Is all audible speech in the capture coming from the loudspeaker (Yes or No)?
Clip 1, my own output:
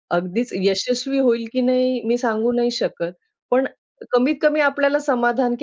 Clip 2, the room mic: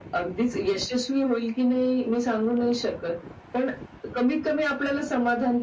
Yes